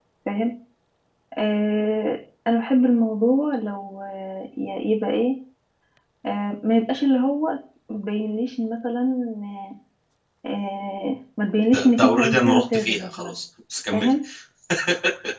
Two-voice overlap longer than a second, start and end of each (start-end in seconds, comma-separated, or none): 11.7-13.4